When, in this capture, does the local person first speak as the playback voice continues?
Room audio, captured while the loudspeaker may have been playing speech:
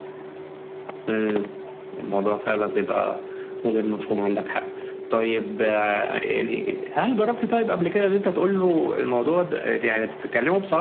none

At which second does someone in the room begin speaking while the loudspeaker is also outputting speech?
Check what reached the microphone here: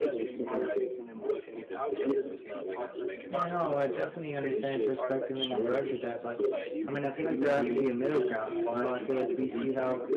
3.3 s

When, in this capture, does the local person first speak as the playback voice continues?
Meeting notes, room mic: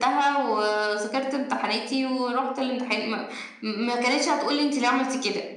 none

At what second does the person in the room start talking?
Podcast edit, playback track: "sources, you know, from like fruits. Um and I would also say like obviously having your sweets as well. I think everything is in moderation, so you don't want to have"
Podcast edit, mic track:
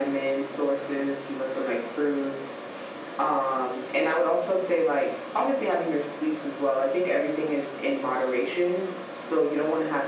none

